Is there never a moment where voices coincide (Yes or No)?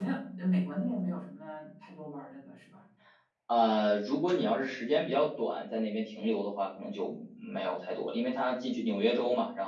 Yes